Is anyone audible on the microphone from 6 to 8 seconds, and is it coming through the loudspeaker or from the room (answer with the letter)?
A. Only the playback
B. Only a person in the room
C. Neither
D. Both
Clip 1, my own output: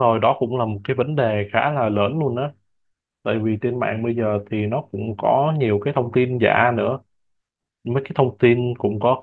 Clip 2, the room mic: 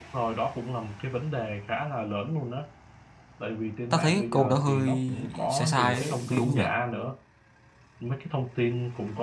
D